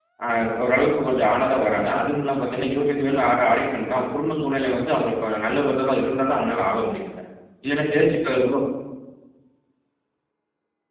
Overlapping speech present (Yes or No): No